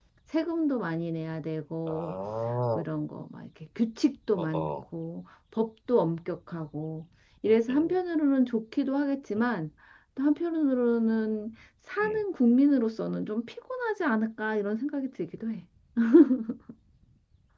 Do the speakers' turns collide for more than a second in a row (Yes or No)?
No